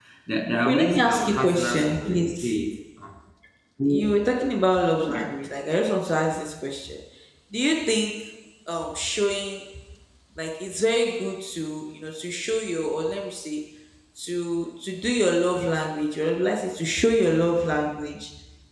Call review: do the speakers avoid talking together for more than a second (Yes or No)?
No